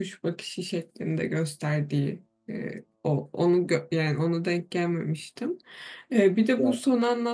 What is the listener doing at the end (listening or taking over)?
listening